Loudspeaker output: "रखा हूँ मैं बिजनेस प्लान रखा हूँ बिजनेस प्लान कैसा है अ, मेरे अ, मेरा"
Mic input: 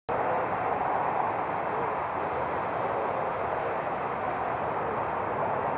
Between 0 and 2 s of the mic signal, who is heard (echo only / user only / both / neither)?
neither